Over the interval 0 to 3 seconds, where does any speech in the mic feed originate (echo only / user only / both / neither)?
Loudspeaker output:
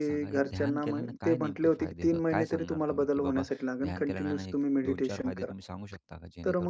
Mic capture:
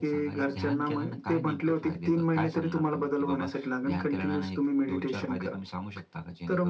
echo only